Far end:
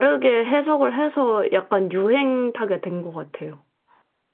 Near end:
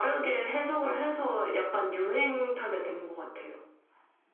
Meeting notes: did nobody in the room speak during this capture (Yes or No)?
Yes